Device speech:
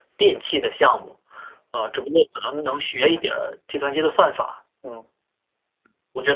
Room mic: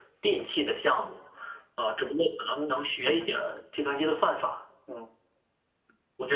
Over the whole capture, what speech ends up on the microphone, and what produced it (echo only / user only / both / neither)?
echo only